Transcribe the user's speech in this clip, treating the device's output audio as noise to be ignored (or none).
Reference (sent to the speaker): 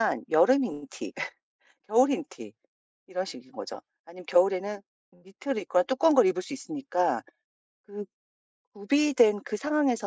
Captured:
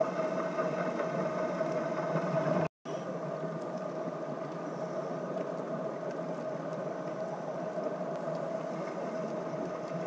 none